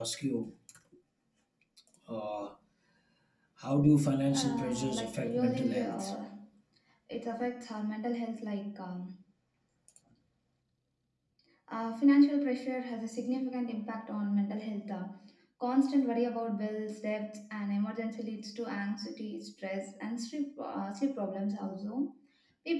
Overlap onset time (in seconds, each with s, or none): 4.3 s